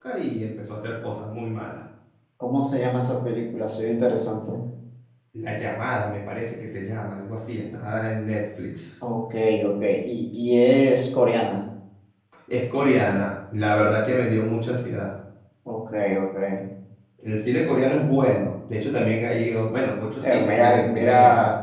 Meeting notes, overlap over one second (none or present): present